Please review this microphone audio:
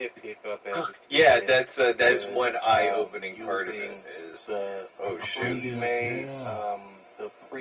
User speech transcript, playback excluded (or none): Like a fun dip, yeah.